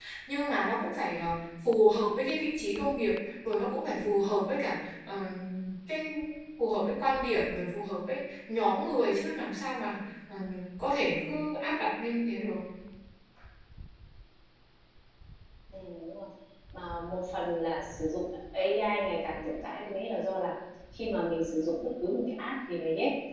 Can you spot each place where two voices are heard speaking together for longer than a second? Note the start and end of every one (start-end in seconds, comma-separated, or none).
none